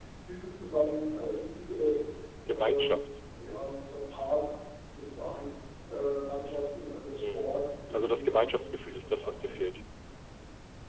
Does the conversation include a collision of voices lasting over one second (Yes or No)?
Yes